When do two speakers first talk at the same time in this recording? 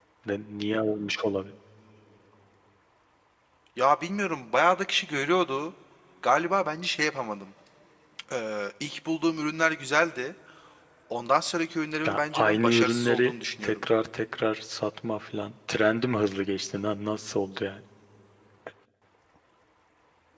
12.0 s

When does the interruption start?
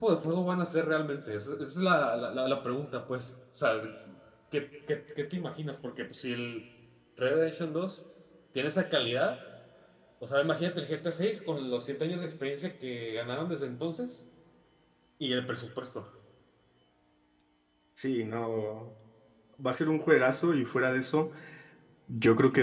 none

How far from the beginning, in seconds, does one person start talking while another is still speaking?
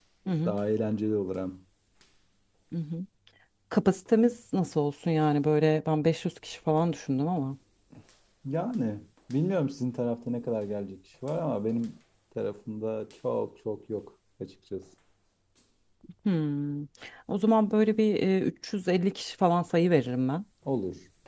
none

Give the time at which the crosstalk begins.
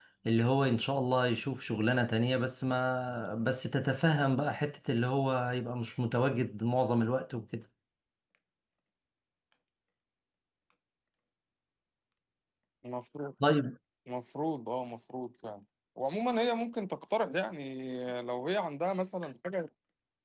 none

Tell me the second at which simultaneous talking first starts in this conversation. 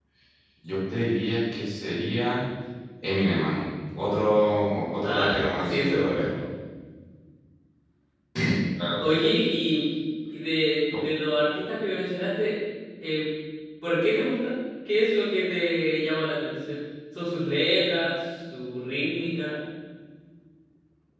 5.0 s

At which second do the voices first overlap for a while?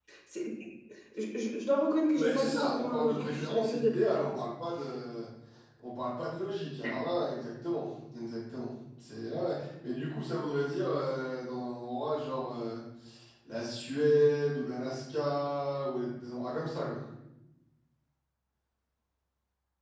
2.1 s

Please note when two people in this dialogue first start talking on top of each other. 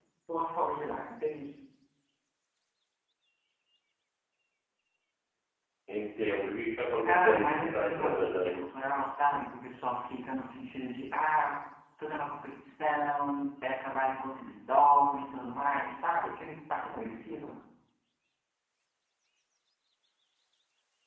7.0 s

